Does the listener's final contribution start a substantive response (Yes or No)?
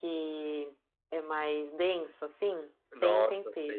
Yes